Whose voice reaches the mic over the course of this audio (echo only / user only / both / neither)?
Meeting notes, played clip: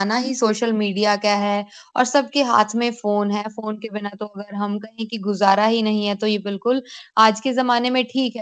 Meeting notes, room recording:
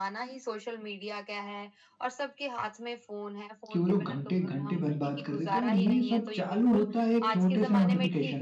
both